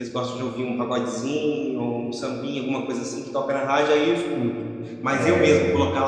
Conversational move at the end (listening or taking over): listening